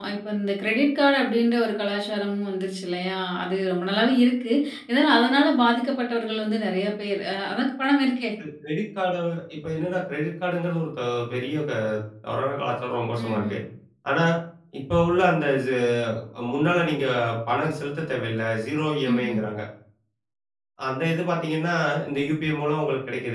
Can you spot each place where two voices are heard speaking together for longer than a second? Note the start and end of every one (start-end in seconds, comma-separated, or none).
none